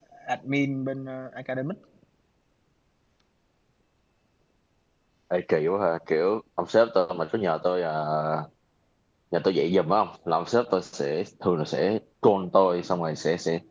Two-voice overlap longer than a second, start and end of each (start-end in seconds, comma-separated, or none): none